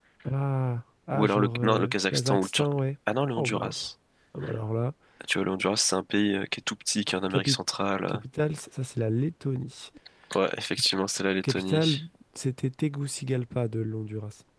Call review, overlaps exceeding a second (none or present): present